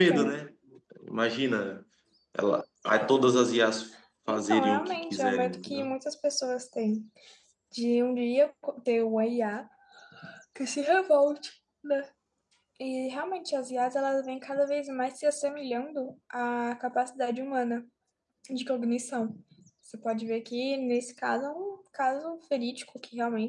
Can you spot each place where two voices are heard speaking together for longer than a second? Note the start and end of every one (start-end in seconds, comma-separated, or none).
4.3-5.9